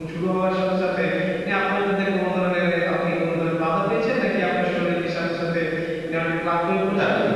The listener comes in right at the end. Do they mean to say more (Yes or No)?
Yes